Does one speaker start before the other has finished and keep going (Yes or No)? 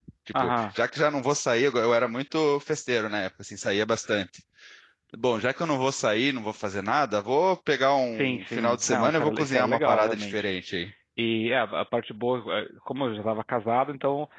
Yes